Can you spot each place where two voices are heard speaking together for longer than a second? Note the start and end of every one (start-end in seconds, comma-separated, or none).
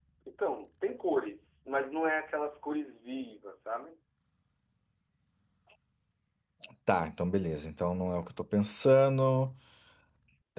none